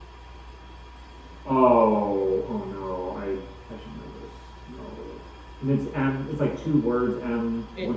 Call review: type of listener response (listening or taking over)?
taking over